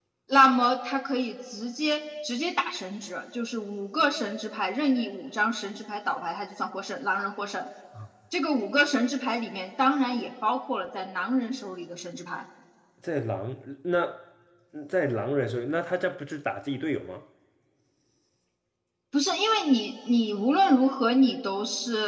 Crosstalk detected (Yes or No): No